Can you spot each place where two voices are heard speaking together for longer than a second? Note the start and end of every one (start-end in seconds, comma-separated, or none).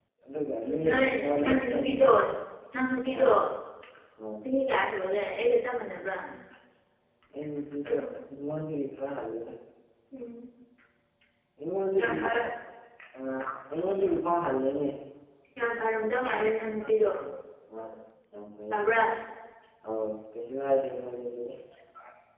0.8-2.1